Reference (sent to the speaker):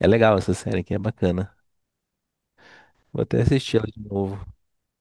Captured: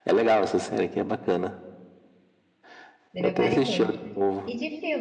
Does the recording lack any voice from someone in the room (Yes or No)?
No